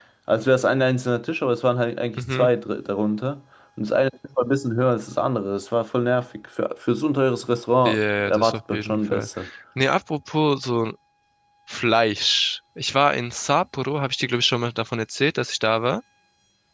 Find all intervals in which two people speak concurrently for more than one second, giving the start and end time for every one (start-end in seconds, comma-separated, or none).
7.8-9.3